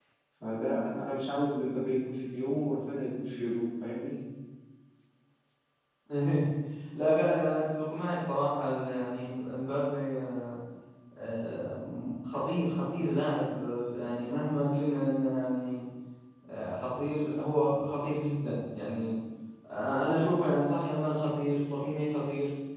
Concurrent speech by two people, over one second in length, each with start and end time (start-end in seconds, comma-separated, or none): none